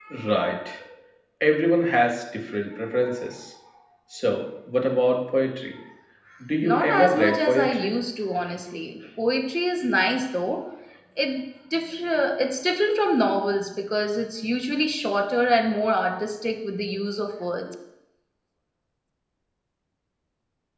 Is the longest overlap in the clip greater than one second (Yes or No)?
Yes